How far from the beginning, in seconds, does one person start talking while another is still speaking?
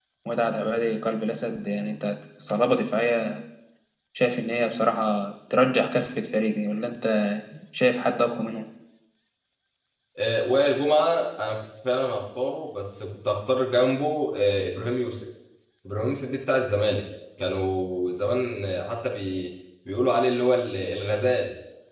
none

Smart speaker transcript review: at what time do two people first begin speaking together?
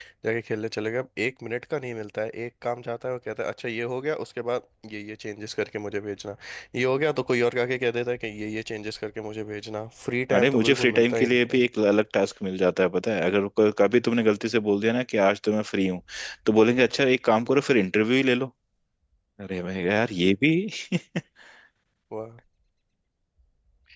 10.3 s

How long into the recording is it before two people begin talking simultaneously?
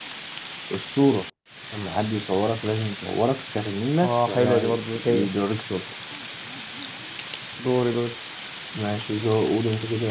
4.0 s

